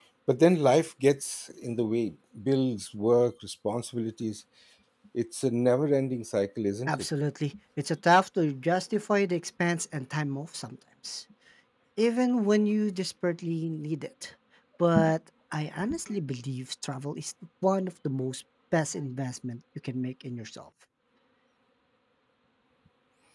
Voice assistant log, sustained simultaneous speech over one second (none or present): none